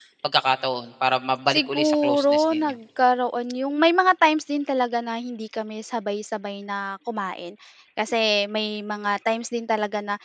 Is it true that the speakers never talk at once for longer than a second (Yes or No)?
No